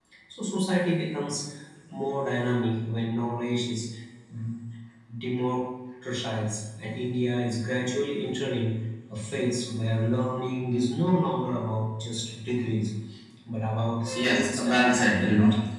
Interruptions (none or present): present